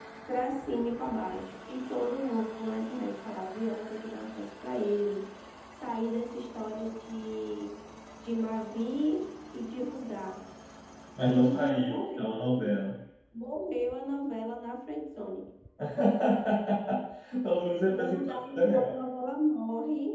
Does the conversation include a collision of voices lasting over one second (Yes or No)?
Yes